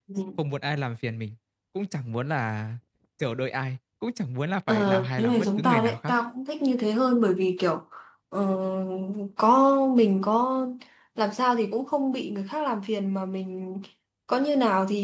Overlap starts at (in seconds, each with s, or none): 4.7 s